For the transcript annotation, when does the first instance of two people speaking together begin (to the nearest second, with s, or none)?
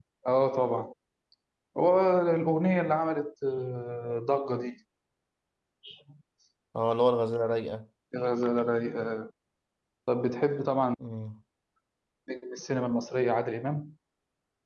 none